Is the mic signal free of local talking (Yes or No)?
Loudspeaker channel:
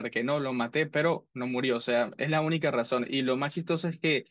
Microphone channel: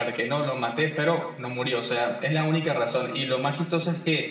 Yes